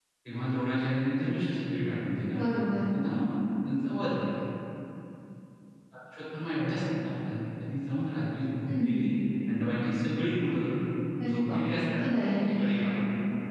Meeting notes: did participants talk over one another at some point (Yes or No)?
Yes